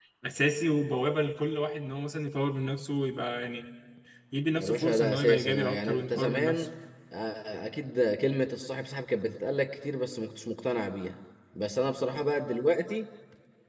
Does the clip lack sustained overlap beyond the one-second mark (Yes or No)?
No